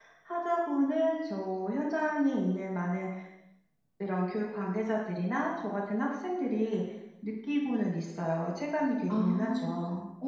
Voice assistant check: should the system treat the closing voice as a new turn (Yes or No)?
Yes